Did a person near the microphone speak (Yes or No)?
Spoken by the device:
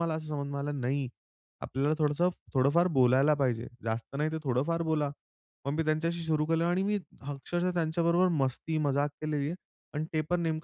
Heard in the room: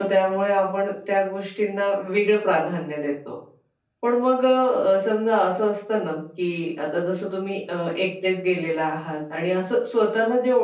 Yes